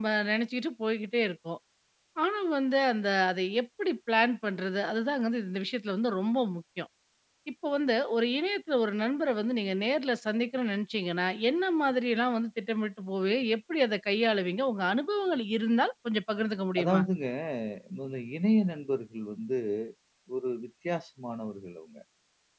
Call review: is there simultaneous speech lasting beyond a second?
No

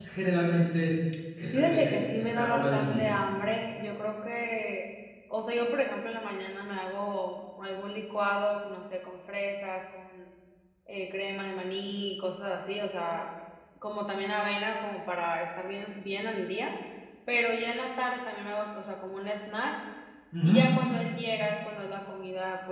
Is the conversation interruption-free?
No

